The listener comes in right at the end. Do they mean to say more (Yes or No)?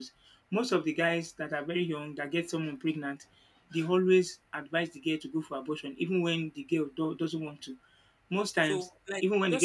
Yes